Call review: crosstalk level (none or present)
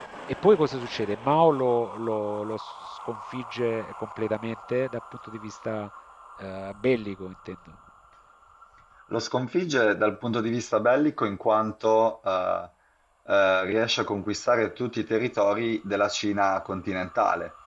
none